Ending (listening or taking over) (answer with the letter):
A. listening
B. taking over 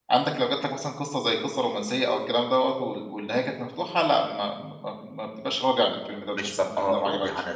B